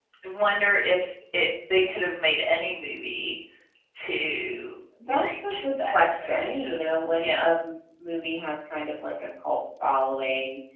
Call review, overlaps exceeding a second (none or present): present